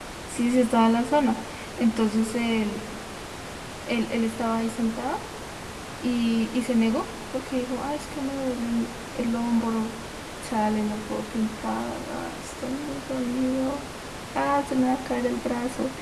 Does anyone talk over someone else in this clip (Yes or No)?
No